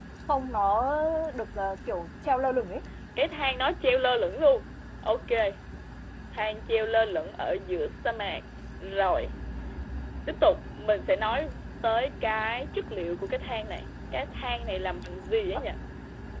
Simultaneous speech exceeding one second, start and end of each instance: none

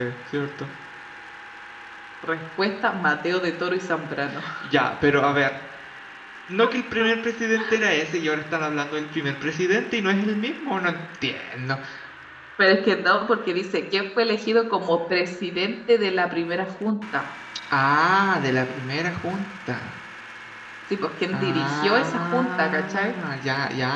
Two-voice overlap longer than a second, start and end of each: 21.3-23.1

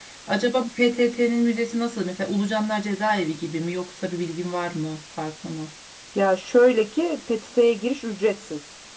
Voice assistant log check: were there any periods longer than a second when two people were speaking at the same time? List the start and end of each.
none

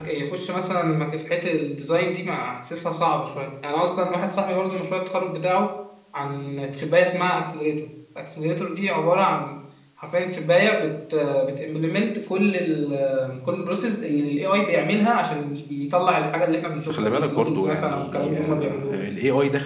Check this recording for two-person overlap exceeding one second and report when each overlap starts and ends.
16.8-19.1

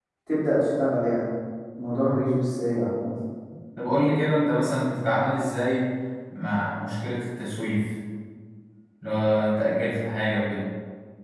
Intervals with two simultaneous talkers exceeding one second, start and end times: none

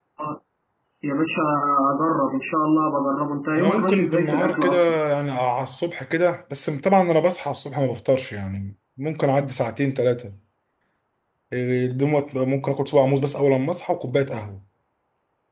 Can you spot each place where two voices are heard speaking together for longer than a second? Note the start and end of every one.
3.6-5.0

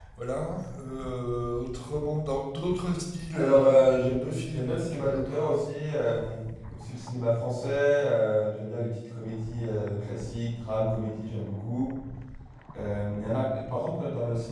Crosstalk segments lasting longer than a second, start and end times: 3.3-5.6

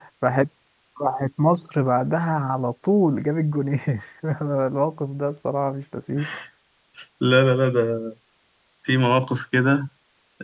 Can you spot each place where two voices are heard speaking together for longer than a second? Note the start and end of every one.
none

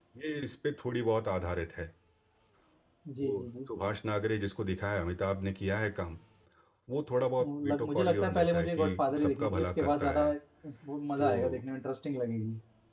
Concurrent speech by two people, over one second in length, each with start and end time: 7.4-10.3

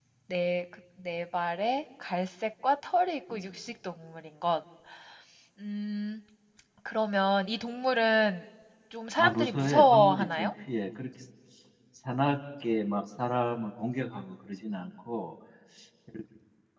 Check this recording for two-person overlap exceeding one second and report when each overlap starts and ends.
9.2-10.5

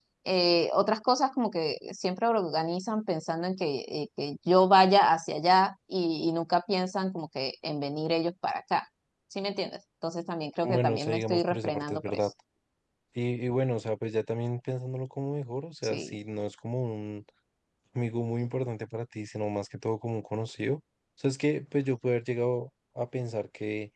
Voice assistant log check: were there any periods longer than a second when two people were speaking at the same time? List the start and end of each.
10.6-12.3

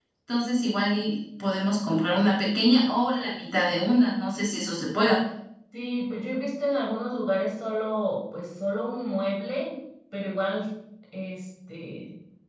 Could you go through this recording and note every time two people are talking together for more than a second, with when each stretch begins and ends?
none

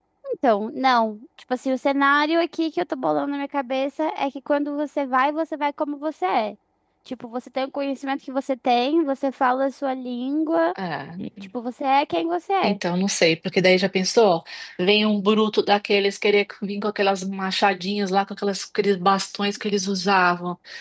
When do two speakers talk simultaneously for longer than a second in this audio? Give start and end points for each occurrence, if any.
none

